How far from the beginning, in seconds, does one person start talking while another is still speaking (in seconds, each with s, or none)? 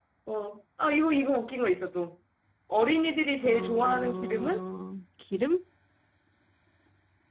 3.4 s